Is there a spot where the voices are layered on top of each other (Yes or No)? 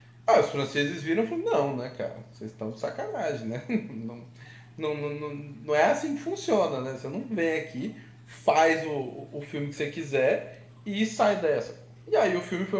No